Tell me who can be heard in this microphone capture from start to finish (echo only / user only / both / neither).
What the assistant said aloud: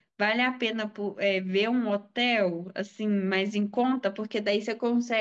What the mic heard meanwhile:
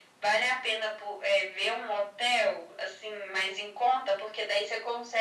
echo only